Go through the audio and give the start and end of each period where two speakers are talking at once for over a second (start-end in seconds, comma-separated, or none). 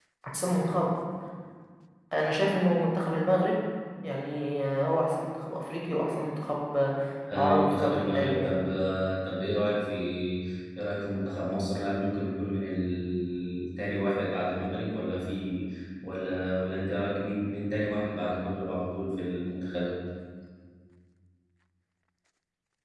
7.3-8.5